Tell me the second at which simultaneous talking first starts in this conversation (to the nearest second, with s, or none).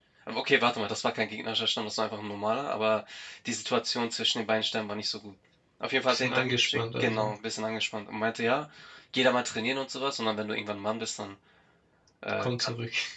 6 s